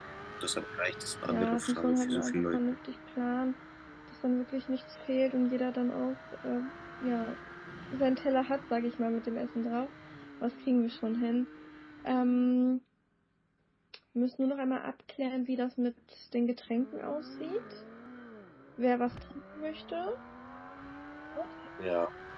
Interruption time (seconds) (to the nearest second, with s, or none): 1 s